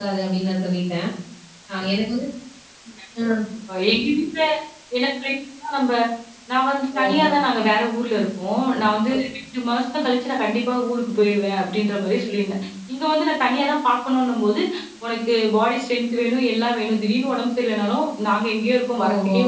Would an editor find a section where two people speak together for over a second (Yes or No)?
No